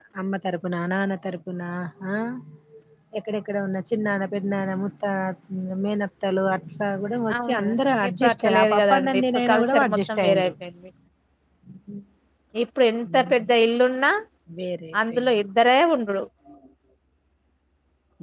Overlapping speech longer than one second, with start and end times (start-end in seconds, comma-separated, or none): 8.1-10.5